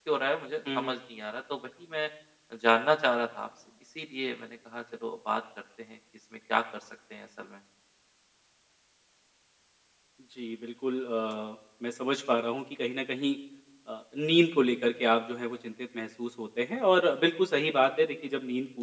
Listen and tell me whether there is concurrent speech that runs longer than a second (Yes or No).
No